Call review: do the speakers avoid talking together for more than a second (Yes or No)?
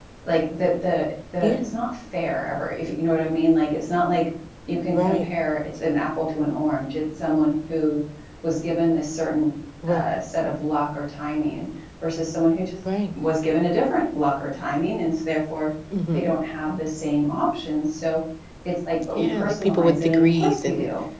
No